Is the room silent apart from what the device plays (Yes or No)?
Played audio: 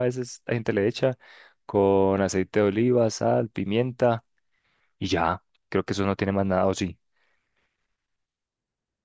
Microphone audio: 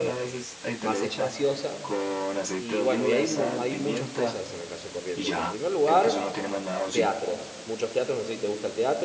No